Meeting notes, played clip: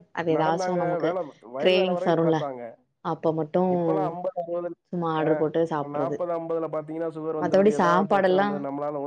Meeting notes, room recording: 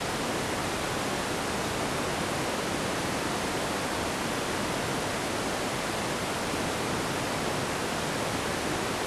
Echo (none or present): none